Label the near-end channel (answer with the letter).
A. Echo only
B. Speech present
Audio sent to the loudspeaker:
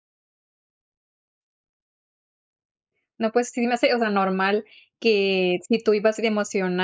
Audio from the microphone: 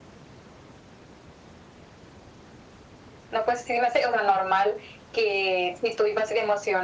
A